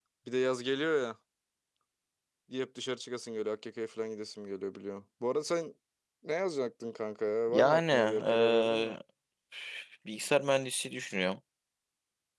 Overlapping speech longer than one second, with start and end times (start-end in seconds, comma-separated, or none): 7.5-8.9